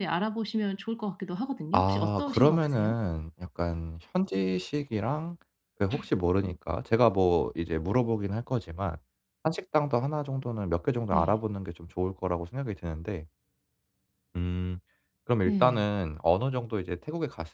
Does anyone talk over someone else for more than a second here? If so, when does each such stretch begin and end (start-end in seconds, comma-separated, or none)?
1.7-3.0